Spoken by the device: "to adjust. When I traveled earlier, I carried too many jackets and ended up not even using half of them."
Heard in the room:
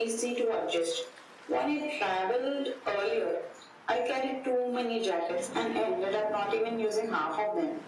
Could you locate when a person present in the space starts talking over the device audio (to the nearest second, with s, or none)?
none